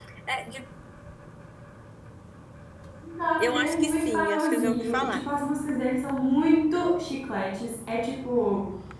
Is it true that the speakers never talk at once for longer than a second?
No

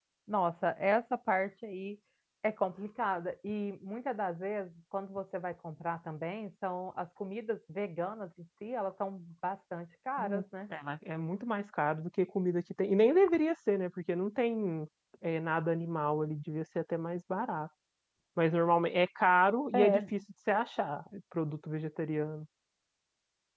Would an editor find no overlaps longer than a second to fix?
Yes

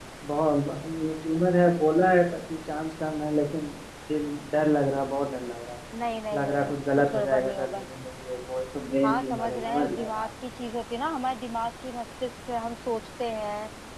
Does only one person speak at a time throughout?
No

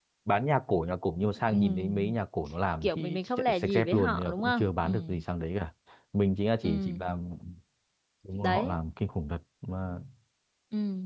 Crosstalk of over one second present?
Yes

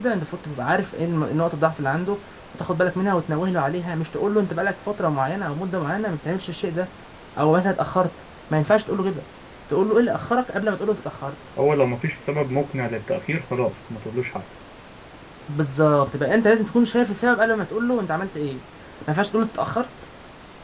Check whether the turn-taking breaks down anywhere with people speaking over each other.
No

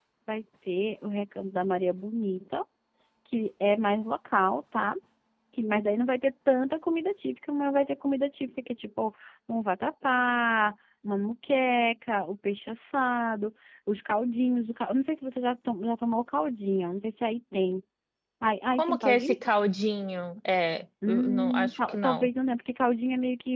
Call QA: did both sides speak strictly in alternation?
No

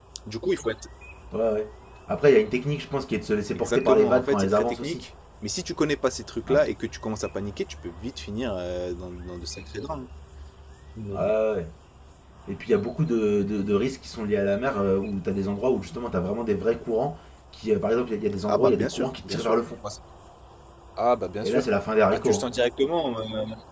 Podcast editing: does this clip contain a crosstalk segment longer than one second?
Yes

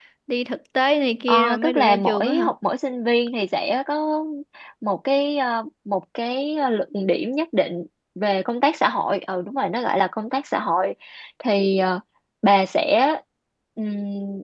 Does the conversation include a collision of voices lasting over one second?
Yes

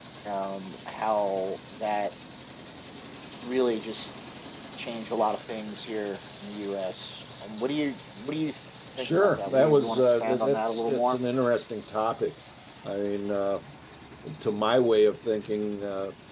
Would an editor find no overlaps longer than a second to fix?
No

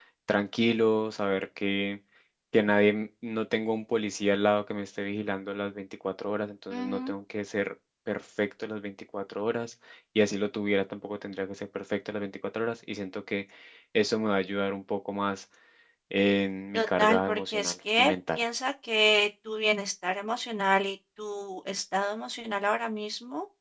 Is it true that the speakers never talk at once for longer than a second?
No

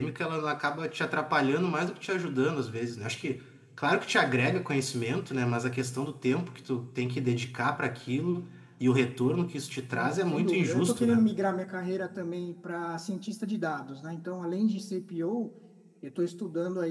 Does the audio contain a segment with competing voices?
Yes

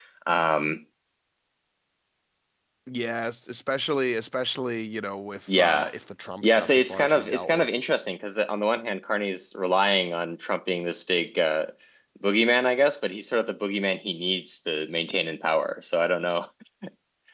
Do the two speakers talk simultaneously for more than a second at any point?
Yes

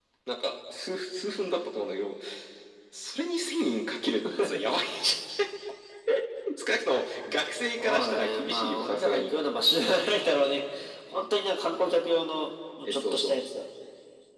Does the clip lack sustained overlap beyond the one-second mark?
No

